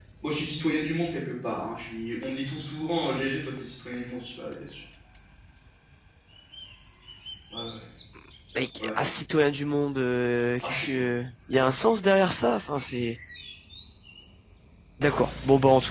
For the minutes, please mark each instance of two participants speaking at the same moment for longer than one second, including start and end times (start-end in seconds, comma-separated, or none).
none